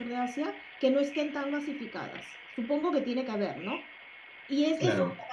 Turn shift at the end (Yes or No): No